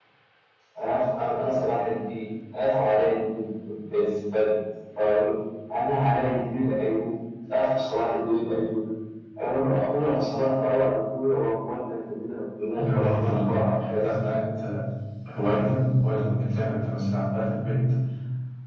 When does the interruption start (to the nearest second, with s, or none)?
13 s